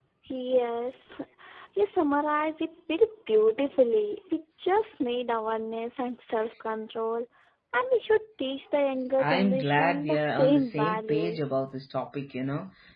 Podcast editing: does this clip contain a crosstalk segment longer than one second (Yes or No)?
Yes